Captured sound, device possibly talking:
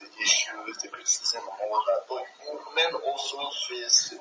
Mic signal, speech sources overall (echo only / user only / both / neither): echo only